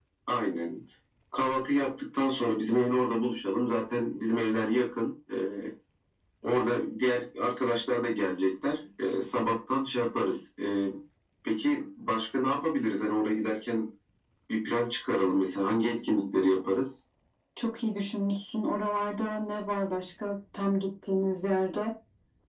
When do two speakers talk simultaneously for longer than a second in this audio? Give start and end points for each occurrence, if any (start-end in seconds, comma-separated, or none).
none